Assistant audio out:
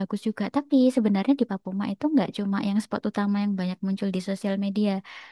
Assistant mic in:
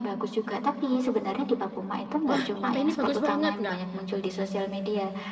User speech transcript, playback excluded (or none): wah pantai ini bagus banget nggak nggak.